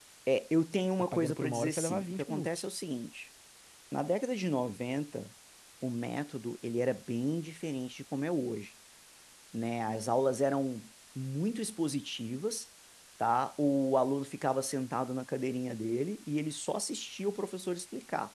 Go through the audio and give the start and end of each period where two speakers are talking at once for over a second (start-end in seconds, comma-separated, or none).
1.1-2.6